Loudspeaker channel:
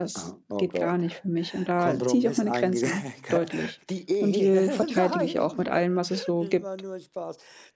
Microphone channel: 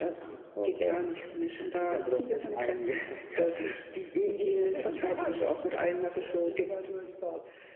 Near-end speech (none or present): none